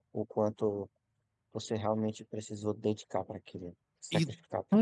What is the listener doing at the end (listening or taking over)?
taking over